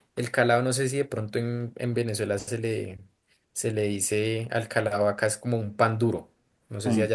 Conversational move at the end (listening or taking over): listening